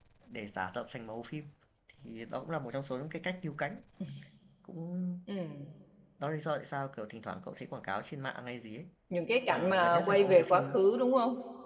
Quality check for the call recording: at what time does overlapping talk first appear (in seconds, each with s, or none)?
9.5 s